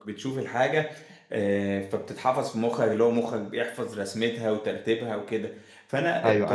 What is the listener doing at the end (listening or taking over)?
listening